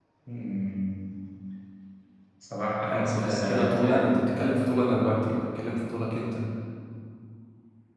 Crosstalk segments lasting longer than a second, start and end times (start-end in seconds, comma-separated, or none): 2.8-4.2